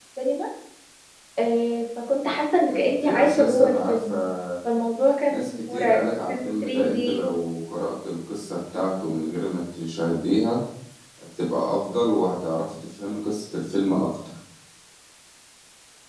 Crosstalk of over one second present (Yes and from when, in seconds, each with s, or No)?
Yes, from 2.7 s